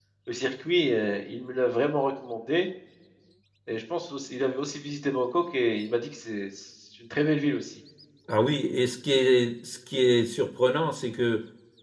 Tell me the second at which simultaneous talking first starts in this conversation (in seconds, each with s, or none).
none